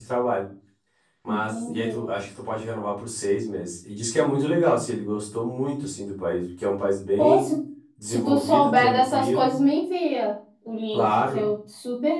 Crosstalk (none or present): present